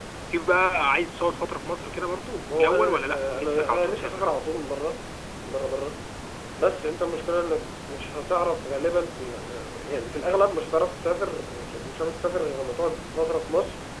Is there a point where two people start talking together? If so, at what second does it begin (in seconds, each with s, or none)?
2.5 s